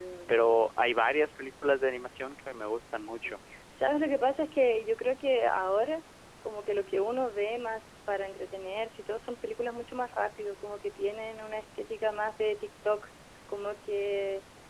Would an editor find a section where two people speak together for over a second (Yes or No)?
No